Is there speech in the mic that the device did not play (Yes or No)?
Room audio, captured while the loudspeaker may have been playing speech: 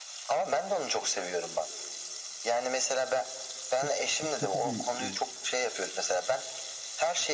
Yes